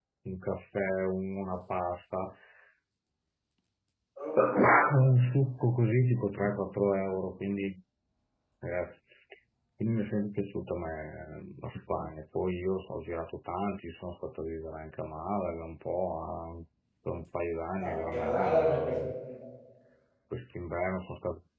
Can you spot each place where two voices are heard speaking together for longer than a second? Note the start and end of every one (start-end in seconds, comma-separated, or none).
17.8-19.1